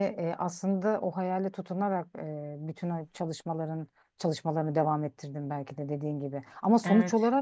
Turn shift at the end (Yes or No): No